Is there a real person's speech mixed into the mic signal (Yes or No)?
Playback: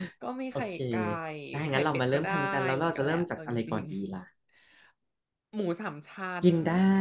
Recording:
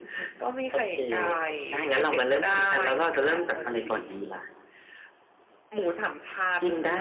No